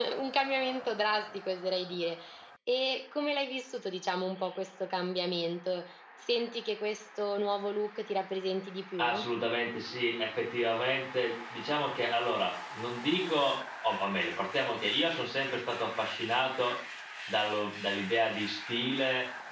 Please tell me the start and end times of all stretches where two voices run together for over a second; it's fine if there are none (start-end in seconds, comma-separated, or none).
none